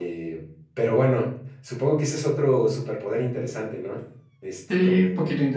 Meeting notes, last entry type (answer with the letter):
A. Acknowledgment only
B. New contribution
B